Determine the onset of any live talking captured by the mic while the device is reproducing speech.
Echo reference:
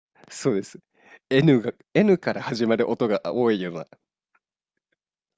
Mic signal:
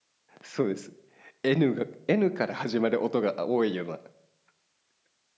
none

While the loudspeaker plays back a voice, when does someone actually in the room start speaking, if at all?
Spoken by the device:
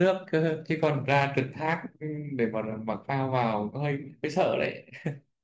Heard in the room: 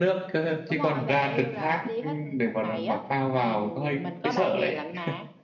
0.6 s

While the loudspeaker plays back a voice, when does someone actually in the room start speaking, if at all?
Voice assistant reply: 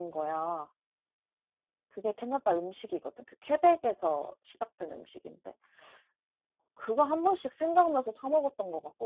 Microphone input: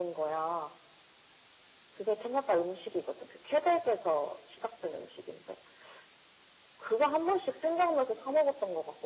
none

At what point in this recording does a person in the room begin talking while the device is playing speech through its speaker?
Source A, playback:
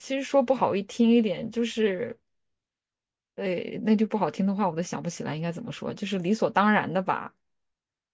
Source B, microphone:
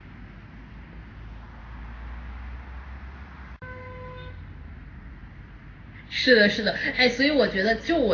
6.1 s

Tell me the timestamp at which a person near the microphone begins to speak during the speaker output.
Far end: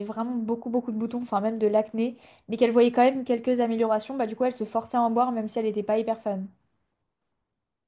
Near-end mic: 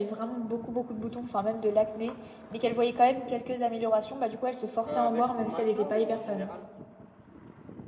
4.8 s

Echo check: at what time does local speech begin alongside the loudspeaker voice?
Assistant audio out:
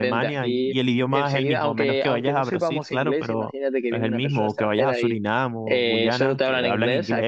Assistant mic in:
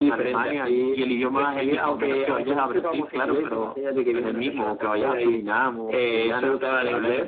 none

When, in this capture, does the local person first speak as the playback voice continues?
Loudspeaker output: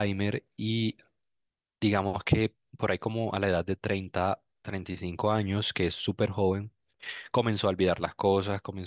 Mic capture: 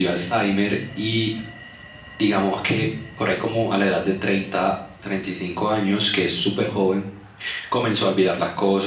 none

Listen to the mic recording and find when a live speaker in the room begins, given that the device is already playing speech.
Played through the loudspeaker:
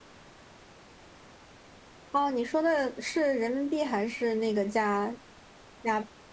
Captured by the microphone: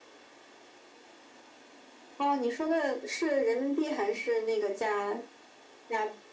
none

